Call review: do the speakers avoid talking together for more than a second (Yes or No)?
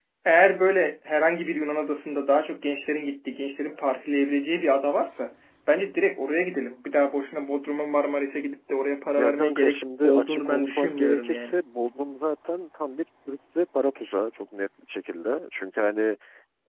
No